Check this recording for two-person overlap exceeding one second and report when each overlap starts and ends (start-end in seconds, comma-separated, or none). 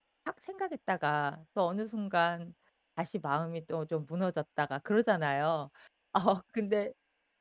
none